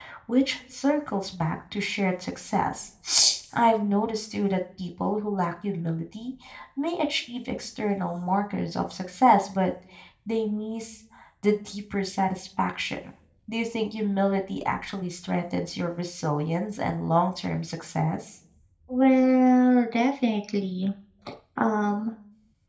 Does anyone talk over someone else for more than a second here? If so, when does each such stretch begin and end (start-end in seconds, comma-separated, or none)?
none